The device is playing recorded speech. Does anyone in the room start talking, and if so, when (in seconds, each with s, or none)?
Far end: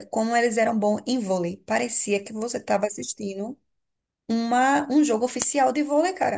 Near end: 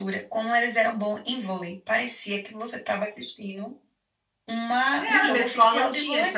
5.0 s